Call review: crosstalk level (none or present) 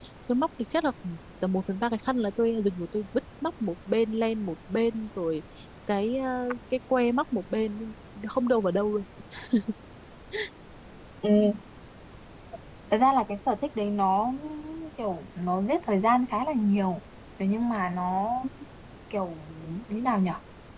none